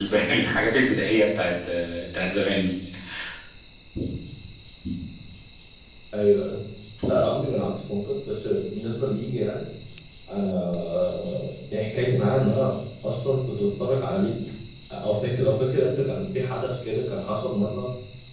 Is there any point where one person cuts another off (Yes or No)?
No